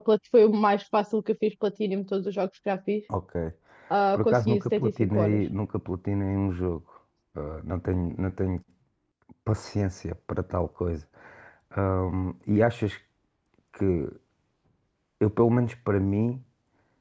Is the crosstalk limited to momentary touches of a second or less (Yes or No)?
No